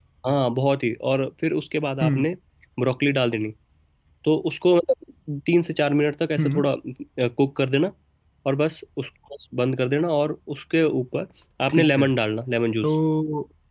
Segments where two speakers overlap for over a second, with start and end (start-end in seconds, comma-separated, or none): none